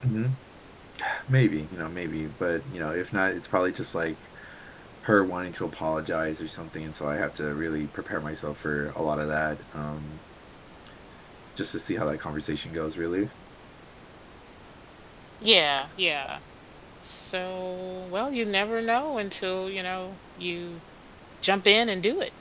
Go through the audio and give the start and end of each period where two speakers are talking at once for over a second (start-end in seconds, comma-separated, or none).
none